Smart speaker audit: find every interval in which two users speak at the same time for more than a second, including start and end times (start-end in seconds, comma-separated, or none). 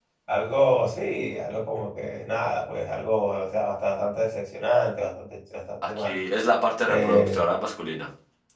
none